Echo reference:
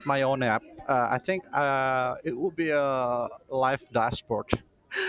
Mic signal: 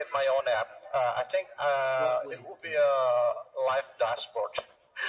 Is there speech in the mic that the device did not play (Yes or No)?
Yes